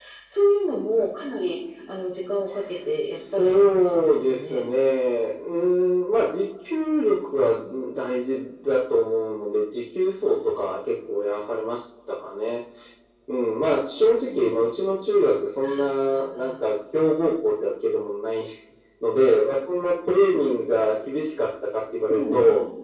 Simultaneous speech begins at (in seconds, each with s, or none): 3.4 s